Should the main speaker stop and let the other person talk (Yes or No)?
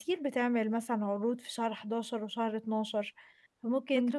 No